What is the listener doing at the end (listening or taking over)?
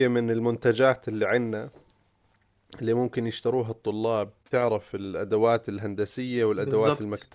listening